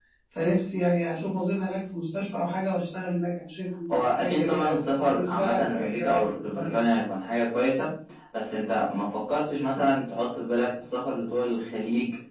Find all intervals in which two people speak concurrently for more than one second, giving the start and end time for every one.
3.9-6.8

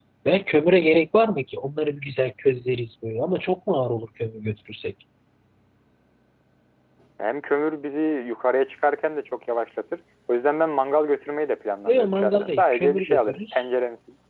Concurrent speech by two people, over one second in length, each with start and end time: 11.9-13.6

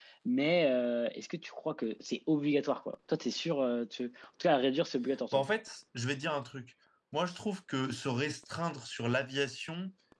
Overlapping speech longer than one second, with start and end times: none

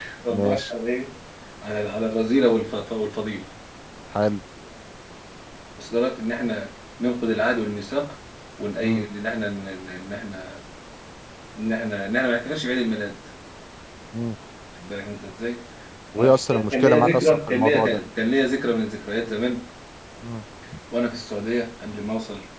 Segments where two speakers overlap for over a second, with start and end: 16.2-18.0

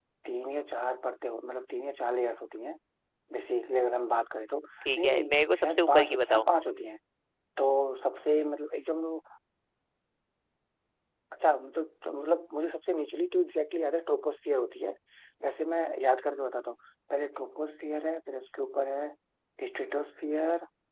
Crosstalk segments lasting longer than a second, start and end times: 5.0-6.5

